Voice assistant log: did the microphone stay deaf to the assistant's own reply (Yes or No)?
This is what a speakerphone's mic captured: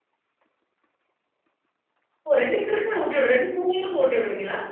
Yes